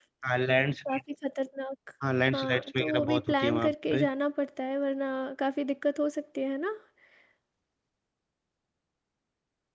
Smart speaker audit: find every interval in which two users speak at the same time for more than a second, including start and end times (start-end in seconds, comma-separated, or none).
2.3-4.0